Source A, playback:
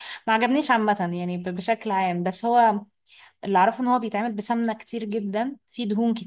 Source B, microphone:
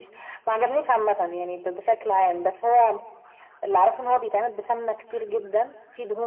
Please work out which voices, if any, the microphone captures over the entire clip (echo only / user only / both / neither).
echo only